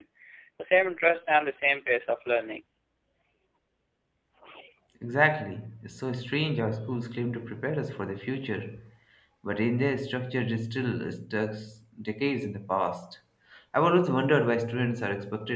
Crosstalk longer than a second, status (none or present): none